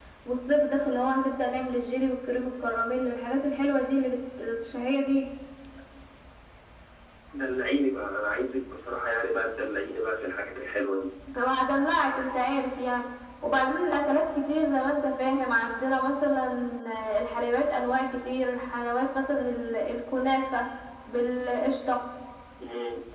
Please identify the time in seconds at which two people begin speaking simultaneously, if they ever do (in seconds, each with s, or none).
none